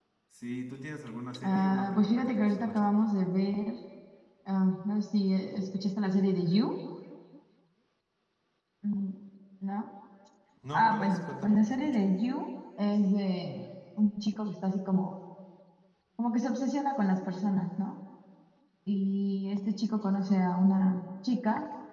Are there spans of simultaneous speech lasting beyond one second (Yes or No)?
Yes